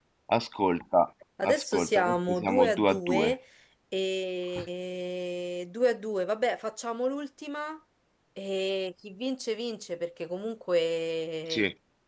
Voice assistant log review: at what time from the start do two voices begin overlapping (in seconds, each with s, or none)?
1.4 s